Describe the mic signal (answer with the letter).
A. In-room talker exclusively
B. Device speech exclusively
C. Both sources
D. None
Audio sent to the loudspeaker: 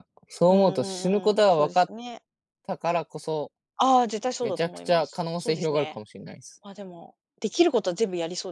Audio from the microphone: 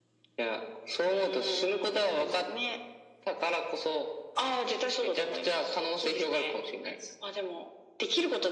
B